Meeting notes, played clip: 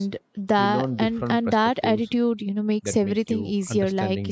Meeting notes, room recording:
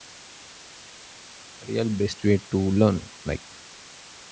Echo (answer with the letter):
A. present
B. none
B